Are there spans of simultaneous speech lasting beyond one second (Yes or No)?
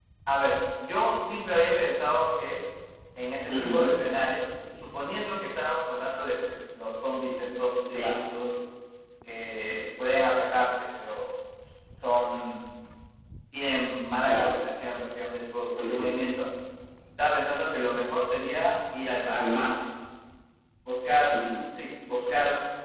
No